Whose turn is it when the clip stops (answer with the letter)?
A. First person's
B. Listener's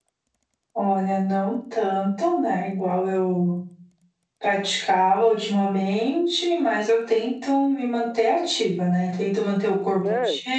A